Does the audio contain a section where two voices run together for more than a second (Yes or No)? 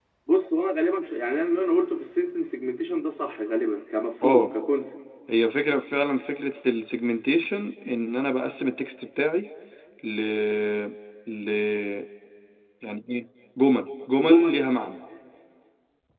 No